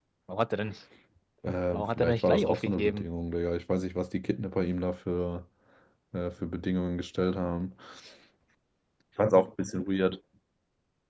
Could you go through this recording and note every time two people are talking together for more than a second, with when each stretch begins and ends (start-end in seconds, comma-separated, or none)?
1.7-3.1